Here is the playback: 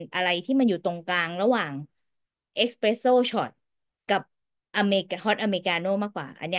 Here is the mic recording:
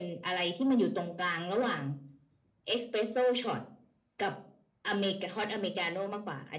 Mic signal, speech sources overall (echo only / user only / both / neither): echo only